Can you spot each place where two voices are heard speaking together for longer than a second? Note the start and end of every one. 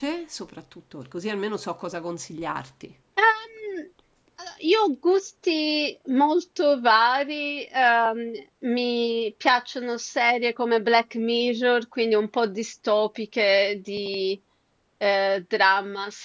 none

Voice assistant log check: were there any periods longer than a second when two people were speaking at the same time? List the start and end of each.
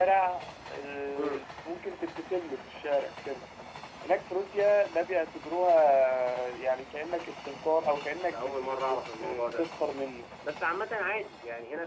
8.3-9.7

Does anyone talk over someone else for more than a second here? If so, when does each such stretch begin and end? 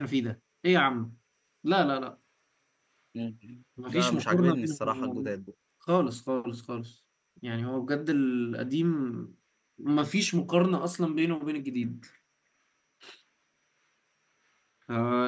3.9-5.3

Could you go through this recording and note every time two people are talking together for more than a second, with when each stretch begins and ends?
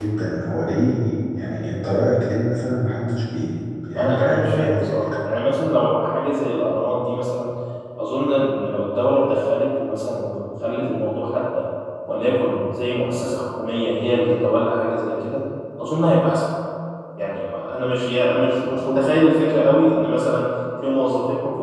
4.0-5.2

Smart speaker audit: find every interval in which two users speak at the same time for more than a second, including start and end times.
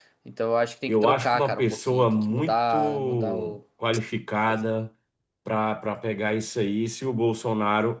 0.9-3.6

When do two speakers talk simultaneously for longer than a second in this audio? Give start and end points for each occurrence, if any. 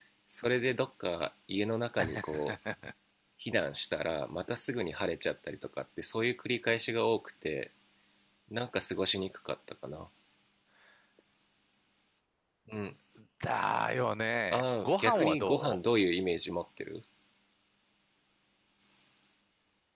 14.5-15.8

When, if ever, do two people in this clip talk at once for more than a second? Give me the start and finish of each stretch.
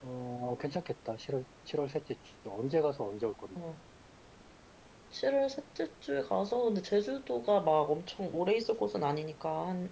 none

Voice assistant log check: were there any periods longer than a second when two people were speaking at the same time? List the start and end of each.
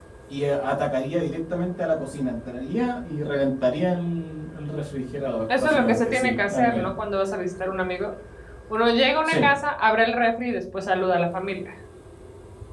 5.6-6.9

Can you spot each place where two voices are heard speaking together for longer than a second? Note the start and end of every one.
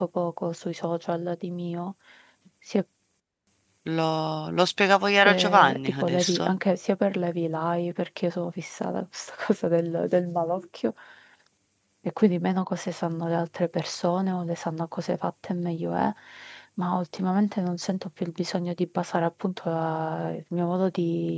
5.2-6.5

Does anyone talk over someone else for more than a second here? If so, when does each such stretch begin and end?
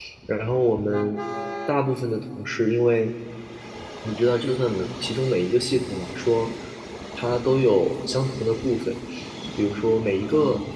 none

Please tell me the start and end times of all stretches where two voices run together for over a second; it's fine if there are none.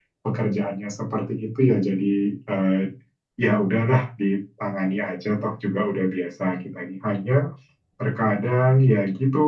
none

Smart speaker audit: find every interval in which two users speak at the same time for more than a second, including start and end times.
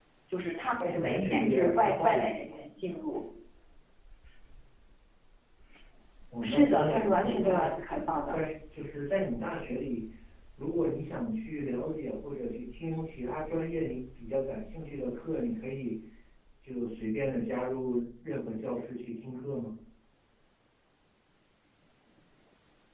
0.7-2.5, 6.4-7.7

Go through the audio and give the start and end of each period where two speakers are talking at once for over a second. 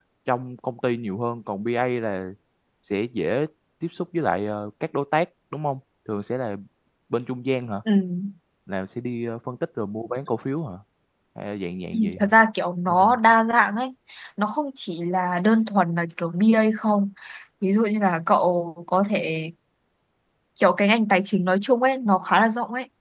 none

